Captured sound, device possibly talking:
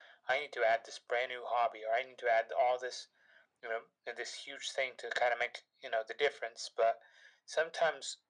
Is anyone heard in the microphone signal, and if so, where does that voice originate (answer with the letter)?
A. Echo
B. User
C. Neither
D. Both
A